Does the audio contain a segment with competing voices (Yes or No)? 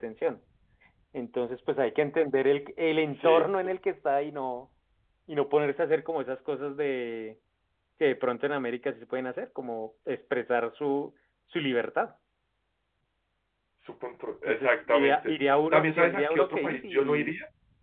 Yes